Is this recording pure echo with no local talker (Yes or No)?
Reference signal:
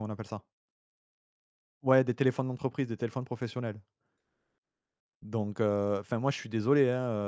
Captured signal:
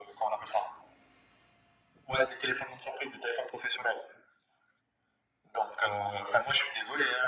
Yes